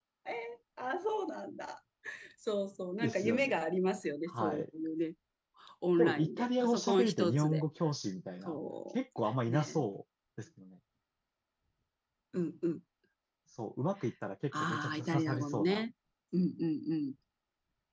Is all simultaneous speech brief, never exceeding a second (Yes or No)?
No